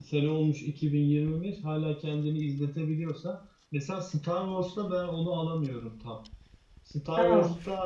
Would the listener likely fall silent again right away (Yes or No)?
Yes